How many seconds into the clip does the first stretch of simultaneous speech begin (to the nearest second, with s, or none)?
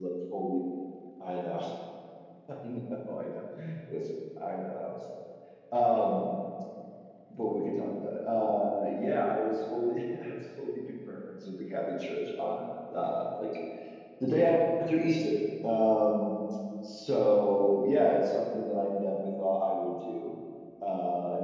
none